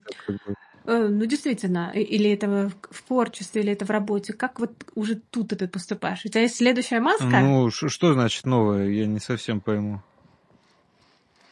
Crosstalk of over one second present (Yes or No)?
No